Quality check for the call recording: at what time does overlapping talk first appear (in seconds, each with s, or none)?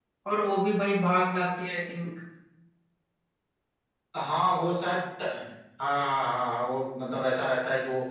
none